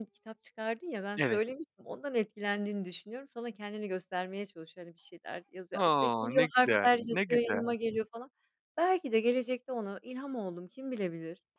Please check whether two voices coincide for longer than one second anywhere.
Yes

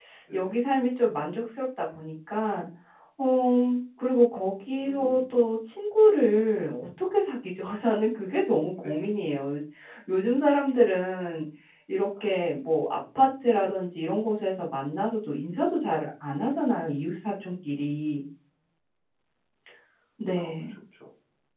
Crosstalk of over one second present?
No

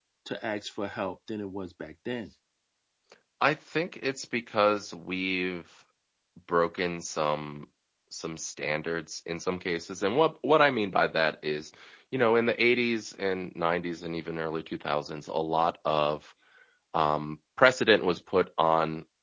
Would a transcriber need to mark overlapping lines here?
No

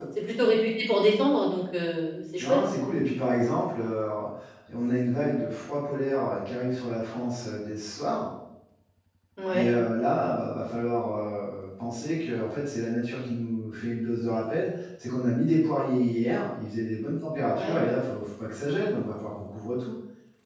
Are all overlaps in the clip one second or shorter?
Yes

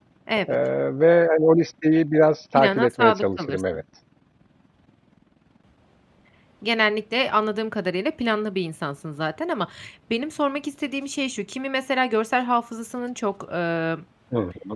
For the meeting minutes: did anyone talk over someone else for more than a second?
Yes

